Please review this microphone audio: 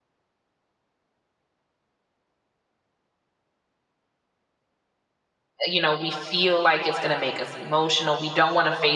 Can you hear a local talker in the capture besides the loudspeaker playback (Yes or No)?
Yes